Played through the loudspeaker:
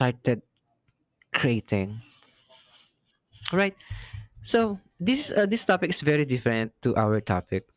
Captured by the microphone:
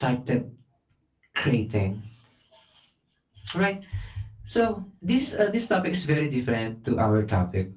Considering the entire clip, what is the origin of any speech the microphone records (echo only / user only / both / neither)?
echo only